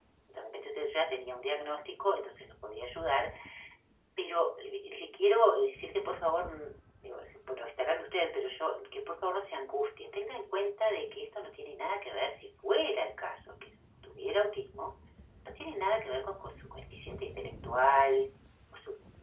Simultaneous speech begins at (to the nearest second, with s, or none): none